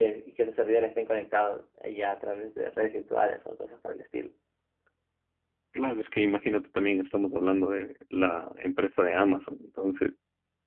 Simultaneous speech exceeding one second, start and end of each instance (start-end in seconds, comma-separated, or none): none